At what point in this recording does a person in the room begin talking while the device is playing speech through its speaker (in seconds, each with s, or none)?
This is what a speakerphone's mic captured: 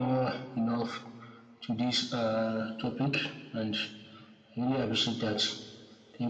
none